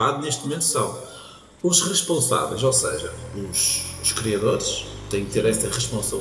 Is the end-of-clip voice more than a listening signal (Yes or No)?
No